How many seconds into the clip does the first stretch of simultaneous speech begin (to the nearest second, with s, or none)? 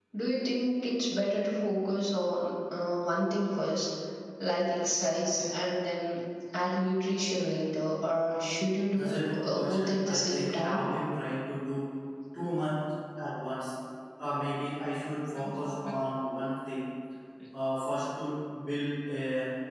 9 s